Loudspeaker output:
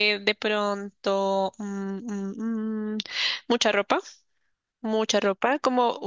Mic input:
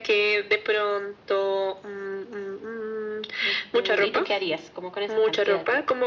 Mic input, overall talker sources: both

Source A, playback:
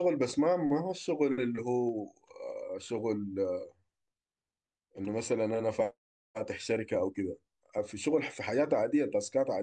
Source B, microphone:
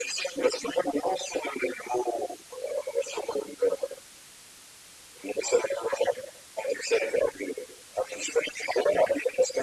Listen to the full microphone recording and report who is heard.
echo only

